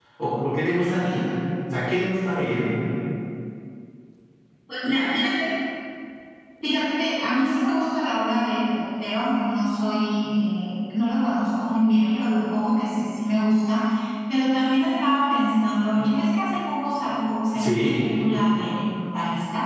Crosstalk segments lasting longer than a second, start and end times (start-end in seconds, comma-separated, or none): none